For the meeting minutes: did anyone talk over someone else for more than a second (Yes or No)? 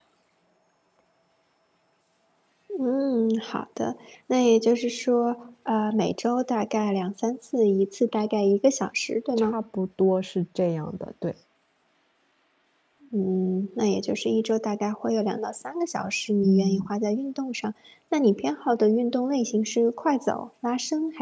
No